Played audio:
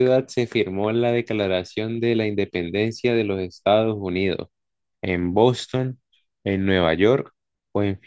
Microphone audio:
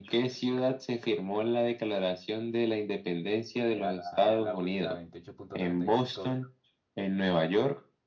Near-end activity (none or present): present